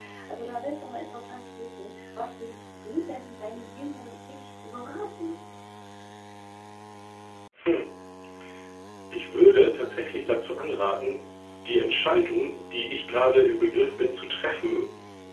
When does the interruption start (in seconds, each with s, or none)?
none